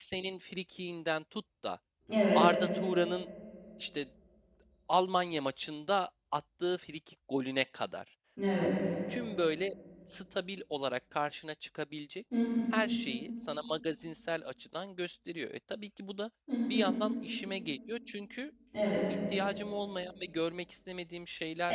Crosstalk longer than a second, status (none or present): none